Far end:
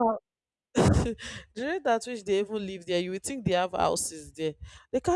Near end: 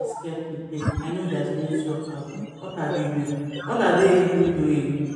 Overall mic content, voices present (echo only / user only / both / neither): both